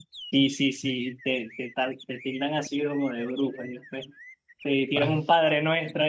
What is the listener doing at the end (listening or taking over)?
listening